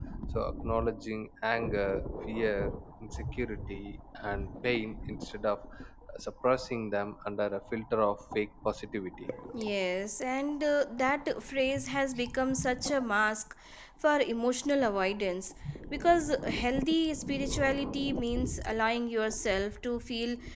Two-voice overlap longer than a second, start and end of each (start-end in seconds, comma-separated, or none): none